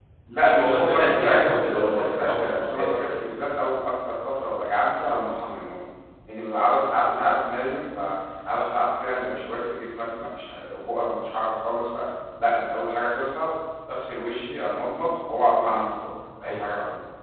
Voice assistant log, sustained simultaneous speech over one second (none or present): present